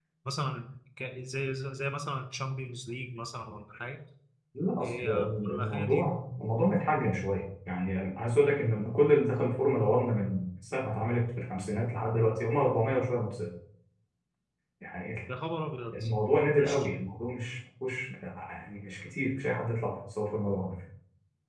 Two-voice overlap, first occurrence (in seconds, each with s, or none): 4.8 s